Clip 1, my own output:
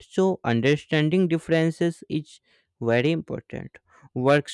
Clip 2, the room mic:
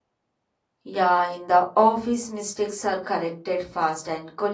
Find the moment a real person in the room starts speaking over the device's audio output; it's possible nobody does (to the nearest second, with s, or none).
1 s